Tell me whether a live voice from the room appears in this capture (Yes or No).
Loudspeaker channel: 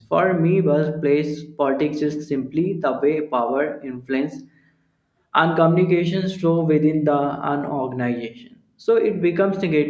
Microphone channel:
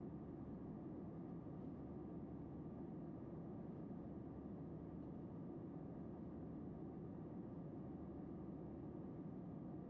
No